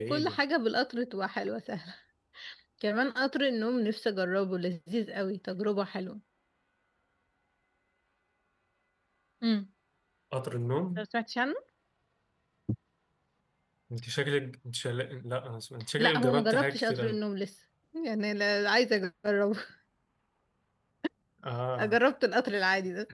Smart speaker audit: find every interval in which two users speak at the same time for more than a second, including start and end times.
16.0-17.2

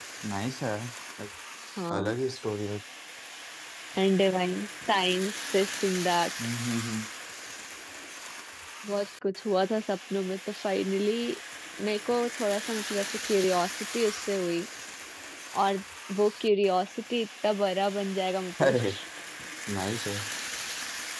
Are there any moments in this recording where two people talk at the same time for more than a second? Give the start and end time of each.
none

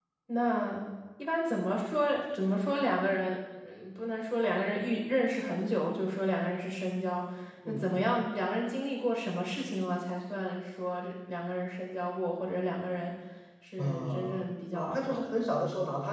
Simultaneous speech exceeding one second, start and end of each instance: 13.8-15.5

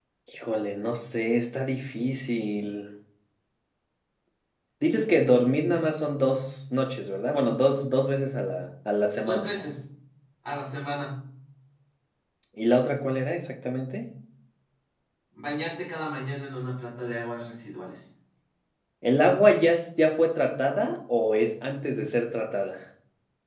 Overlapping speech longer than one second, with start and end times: none

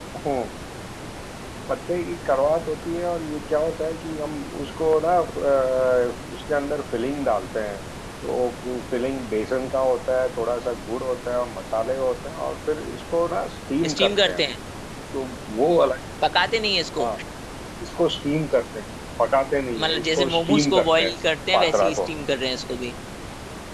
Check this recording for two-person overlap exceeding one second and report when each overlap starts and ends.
19.8-21.1

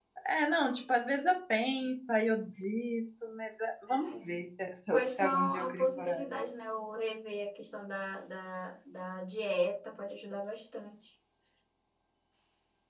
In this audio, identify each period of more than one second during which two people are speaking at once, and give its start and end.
4.9-6.4

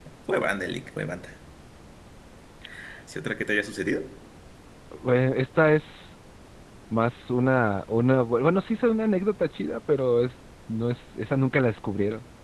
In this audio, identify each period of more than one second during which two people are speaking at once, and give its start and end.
none

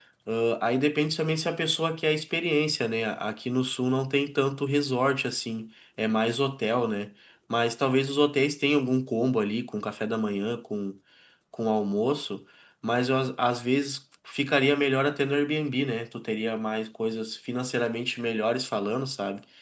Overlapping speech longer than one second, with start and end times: none

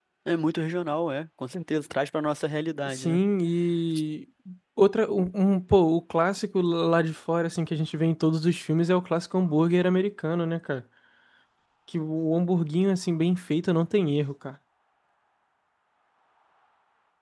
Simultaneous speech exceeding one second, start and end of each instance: none

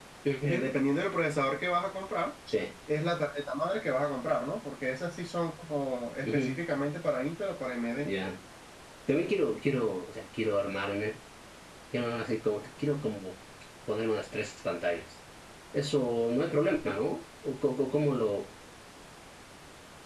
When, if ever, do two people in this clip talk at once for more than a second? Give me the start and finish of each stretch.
none

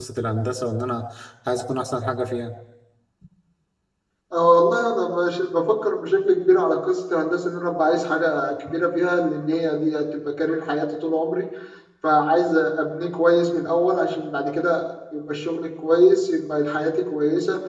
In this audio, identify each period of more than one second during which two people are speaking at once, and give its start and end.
none

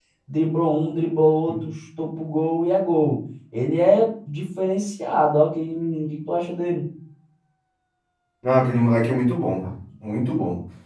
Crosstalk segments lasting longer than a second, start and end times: none

